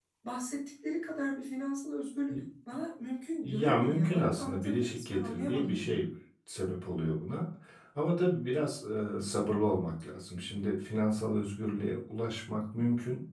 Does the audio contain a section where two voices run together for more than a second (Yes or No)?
Yes